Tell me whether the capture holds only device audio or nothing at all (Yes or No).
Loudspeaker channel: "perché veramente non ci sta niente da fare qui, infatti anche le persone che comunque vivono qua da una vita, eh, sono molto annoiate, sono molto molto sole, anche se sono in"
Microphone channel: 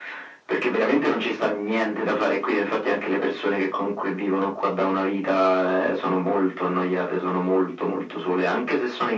Yes